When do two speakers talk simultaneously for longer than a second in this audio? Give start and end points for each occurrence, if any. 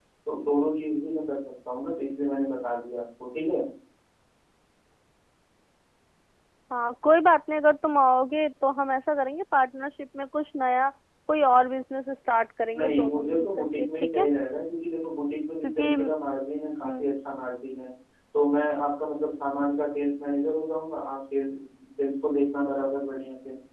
12.8-14.3

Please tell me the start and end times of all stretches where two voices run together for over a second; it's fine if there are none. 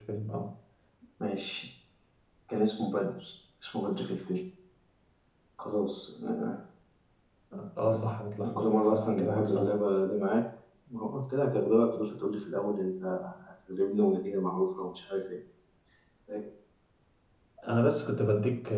8.4-9.8

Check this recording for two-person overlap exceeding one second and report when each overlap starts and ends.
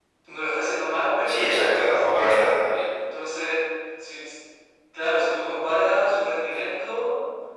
1.2-2.5

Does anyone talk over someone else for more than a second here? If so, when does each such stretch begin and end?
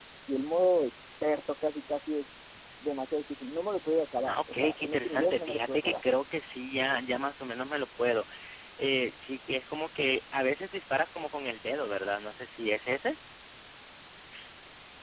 4.3-6.0

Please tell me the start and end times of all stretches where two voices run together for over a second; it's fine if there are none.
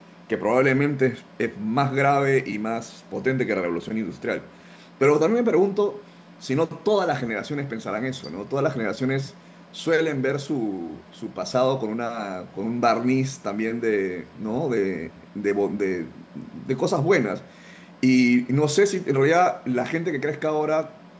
none

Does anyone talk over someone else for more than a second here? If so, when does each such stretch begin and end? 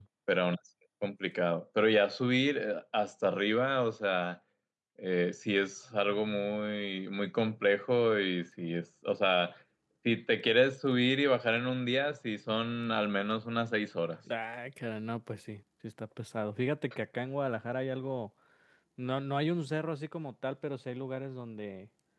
none

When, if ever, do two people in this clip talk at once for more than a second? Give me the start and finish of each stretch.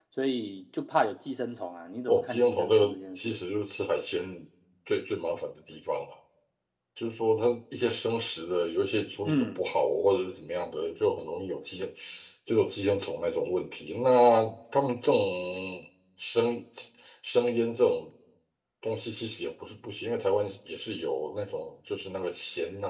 2.1-3.4

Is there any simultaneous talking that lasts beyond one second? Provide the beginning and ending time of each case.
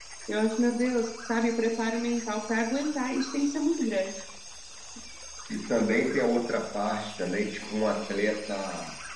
none

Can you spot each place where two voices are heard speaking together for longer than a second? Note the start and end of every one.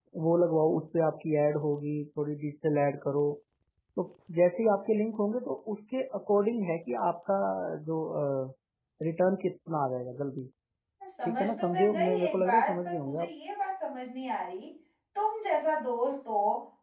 11.2-13.3

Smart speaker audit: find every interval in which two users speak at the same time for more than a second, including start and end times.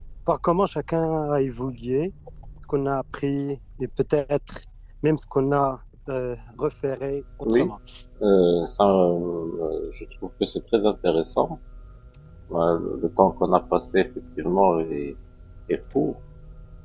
none

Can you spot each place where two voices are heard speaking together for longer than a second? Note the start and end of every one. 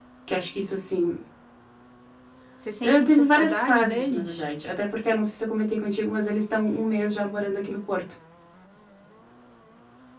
2.8-4.5

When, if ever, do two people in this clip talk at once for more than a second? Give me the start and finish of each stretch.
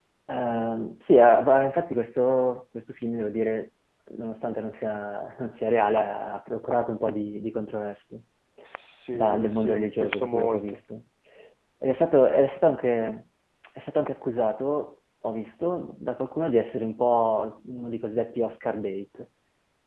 9.1-10.8

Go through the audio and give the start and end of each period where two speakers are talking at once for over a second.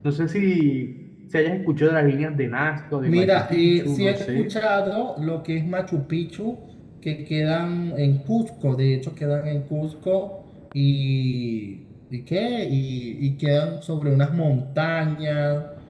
3.0-4.5

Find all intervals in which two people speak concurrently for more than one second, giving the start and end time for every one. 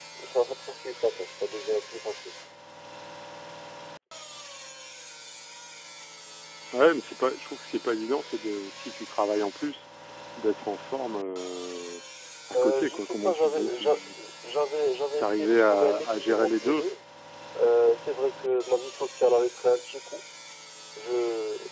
12.6-13.8, 15.2-16.8

